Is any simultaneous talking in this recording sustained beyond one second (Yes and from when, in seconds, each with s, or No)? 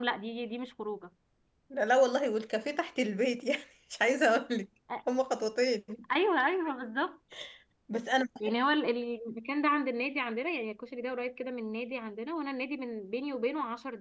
No